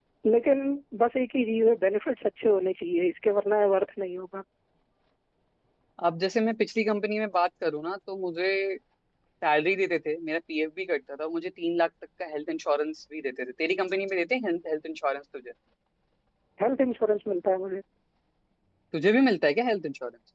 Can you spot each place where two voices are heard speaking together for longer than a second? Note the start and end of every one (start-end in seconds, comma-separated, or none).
none